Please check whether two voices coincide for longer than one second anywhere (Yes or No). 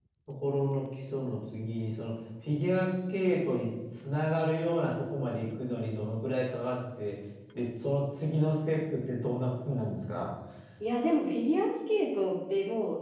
No